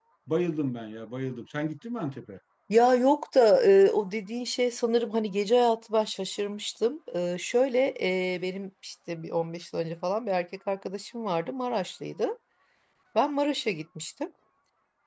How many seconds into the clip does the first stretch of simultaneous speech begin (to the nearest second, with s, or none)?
none